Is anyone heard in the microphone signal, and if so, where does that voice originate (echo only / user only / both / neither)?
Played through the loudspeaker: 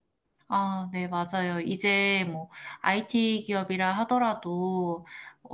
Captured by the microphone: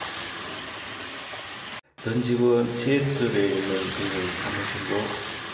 user only